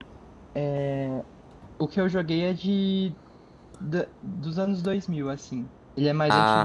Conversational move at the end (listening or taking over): listening